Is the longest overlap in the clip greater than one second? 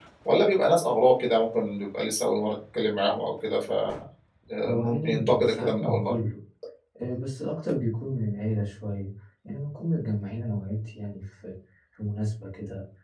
Yes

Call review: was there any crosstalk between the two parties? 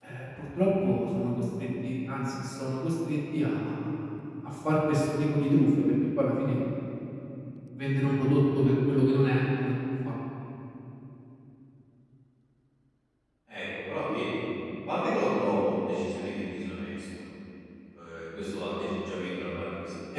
No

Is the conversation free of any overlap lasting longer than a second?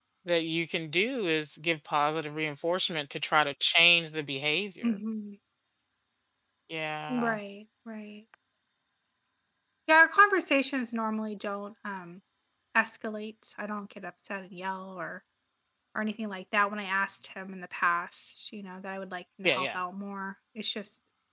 Yes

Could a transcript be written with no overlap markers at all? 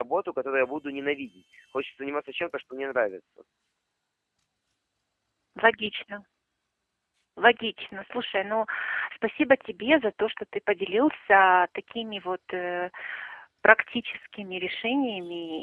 Yes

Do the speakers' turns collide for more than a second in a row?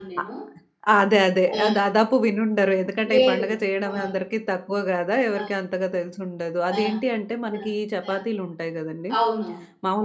No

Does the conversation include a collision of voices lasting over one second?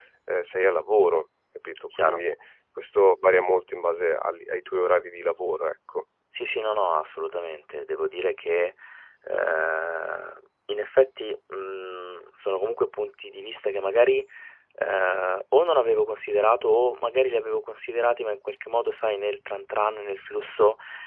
No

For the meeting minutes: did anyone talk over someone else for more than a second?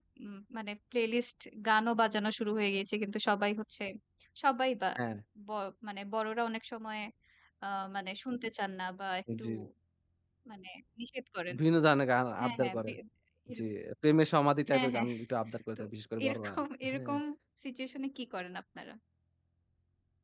No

